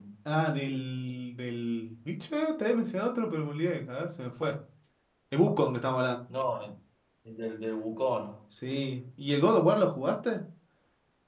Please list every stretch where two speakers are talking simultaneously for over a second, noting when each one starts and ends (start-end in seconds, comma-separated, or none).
none